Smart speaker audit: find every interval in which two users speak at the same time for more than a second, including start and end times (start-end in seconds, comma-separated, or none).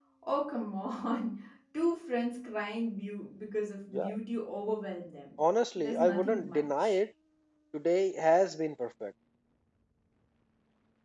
5.8-7.0